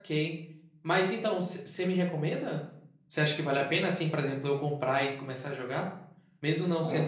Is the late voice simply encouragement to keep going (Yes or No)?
Yes